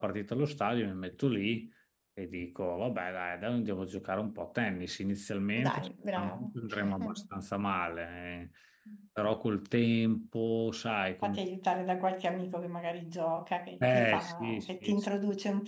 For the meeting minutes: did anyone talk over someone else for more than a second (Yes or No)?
Yes